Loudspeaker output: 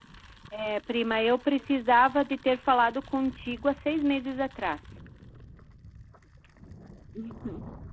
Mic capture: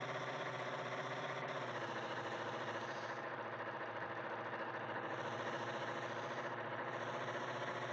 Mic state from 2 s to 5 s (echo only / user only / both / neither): neither